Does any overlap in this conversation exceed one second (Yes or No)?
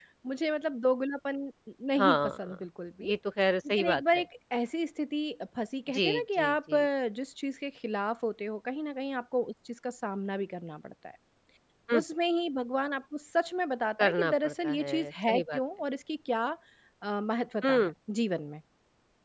Yes